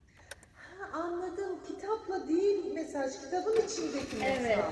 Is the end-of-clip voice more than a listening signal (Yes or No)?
Yes